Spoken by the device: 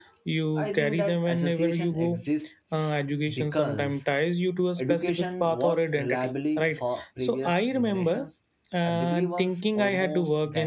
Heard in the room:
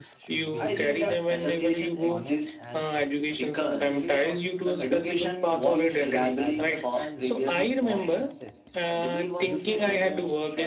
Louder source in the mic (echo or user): echo